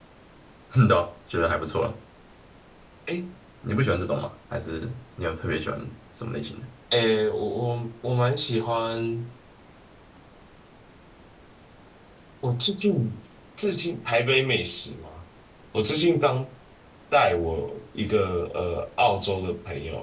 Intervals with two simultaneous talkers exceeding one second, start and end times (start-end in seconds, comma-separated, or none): none